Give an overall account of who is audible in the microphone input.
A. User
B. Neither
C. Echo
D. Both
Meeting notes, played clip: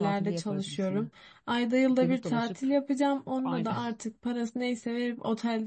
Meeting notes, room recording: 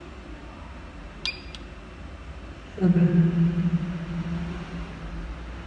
A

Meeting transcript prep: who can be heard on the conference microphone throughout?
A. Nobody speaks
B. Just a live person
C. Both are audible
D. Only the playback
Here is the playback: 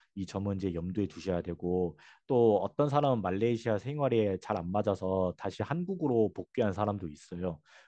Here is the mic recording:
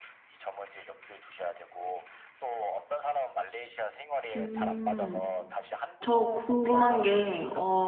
C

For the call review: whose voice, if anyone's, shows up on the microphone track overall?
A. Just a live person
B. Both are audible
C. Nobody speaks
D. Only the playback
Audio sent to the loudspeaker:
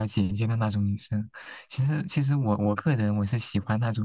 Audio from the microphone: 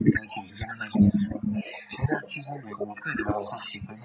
D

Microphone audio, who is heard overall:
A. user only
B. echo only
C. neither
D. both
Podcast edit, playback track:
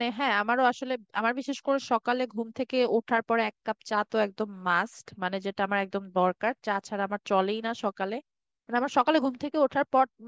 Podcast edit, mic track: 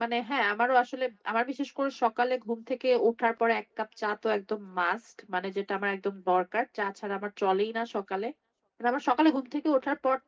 B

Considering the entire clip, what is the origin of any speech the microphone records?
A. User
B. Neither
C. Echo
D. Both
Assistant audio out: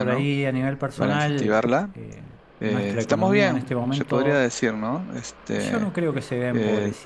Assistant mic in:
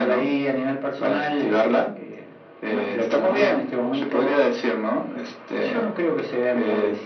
C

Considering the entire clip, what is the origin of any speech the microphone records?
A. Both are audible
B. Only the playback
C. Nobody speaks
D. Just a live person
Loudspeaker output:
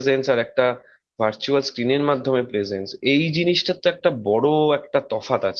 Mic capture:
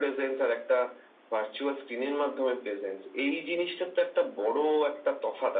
B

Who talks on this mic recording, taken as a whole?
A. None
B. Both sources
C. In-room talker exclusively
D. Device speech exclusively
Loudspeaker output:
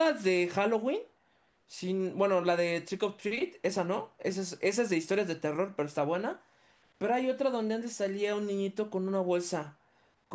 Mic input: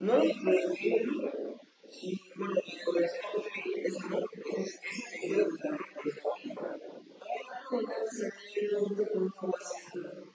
D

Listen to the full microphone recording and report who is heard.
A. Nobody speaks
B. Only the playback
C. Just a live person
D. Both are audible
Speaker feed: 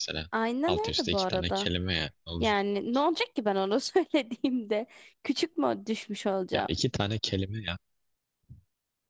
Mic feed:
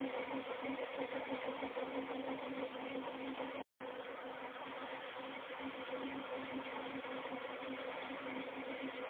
A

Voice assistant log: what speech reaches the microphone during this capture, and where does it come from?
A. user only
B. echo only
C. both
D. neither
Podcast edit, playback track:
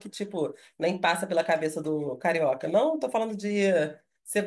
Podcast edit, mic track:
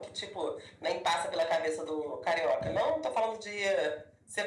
B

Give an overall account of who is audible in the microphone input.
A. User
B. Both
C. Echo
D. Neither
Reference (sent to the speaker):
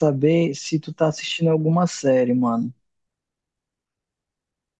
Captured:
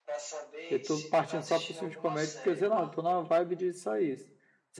B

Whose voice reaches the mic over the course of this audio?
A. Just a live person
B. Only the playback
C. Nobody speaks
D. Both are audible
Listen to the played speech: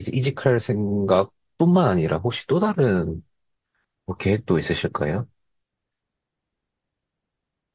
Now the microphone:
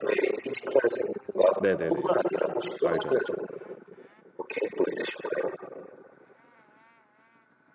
D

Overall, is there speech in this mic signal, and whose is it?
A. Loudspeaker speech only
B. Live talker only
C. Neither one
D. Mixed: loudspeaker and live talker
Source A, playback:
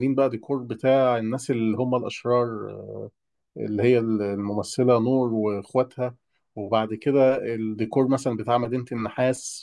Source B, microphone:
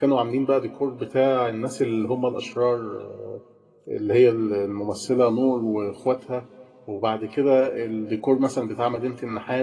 A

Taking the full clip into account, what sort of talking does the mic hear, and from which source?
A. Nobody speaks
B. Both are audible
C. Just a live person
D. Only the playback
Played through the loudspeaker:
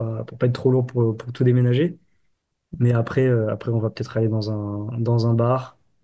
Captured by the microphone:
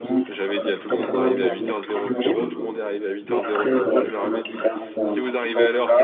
B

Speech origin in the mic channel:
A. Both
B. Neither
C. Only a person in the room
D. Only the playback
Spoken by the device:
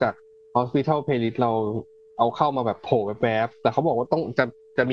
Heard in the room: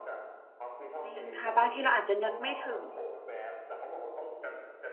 A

